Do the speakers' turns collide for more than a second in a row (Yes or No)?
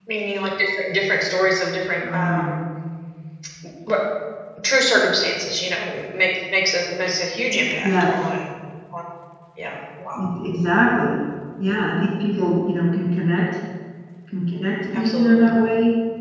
No